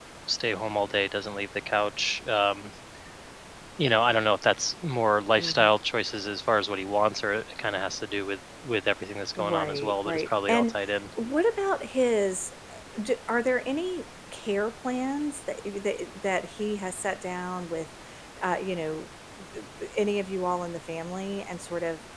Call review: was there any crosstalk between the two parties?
Yes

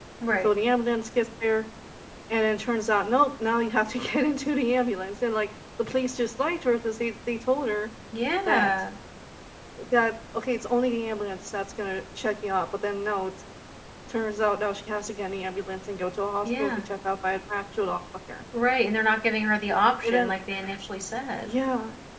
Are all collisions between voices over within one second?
Yes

